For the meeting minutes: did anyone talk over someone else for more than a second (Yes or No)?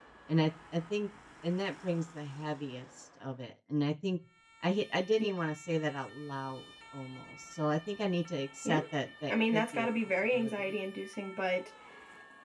Yes